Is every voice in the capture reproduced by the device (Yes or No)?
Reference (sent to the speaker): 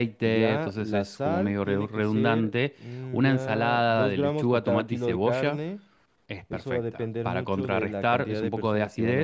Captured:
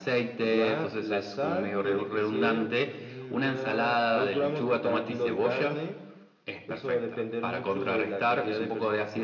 Yes